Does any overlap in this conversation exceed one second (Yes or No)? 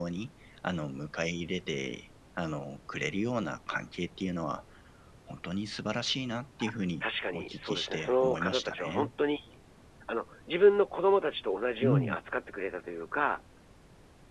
Yes